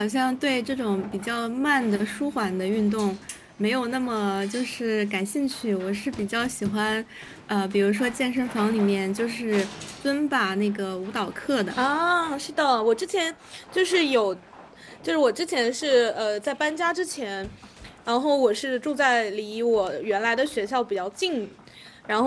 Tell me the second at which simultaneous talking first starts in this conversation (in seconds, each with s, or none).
none